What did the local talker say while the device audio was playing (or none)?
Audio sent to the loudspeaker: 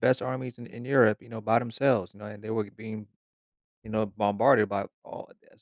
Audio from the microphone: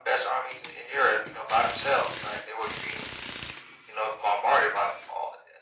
none